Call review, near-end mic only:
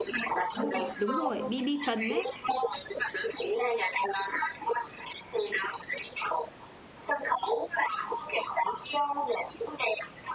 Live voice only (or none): Đúng rồi, đúng rồi, BB Trần ấy.